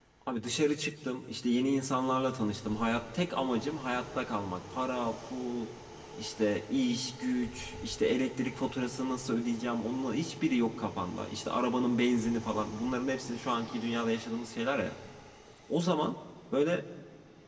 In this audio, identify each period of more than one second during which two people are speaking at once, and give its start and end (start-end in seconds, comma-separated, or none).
none